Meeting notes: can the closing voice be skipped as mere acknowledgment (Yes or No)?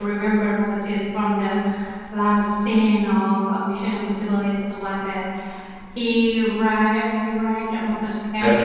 Yes